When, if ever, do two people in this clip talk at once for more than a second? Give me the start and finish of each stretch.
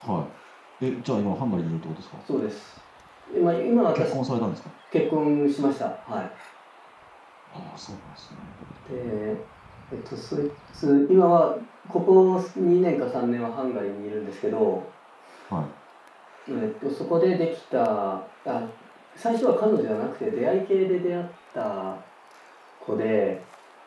none

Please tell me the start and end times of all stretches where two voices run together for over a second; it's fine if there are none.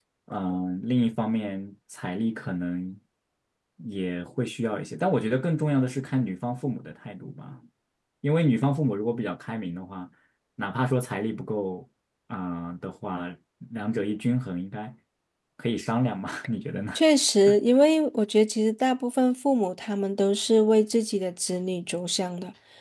none

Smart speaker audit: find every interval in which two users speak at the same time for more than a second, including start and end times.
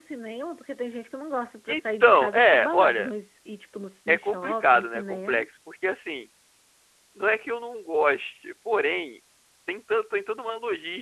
1.7-3.1, 4.1-5.4

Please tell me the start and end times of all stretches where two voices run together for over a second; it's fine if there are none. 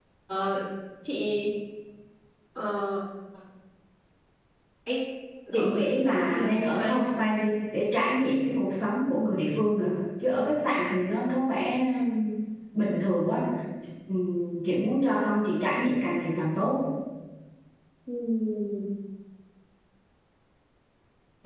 5.5-7.0

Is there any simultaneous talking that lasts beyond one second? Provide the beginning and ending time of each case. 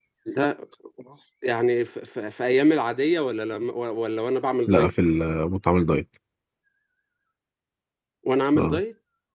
none

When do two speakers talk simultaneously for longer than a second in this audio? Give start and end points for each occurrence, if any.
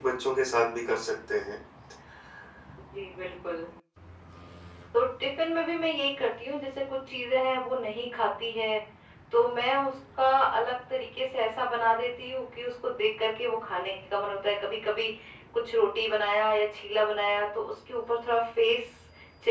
none

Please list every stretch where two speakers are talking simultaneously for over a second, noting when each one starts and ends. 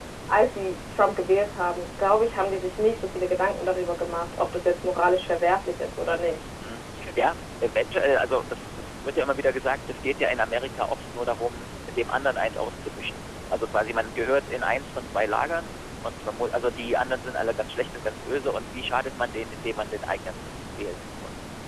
none

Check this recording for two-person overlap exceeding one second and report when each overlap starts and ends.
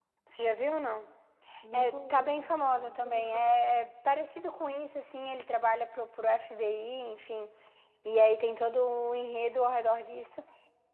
1.7-3.2

